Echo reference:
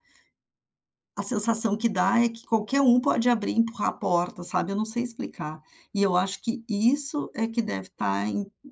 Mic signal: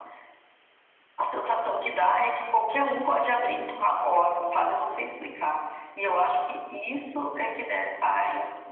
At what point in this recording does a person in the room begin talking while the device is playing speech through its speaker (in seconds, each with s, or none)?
none